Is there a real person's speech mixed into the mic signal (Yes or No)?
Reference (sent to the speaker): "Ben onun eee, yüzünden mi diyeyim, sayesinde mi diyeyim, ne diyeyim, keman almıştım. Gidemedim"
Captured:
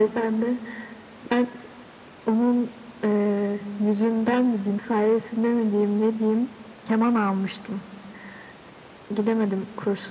No